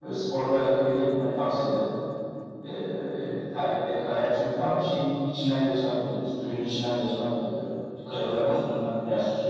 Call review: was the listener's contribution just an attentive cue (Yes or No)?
Yes